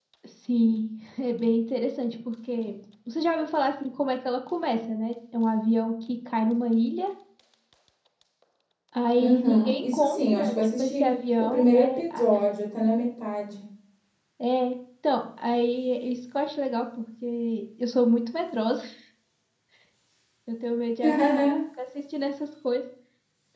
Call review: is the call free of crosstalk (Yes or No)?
No